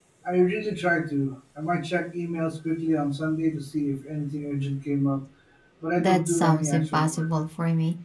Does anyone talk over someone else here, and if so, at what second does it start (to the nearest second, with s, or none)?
6 s